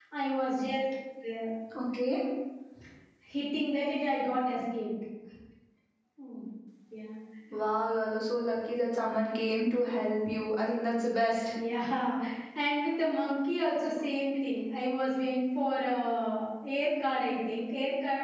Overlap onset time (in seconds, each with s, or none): none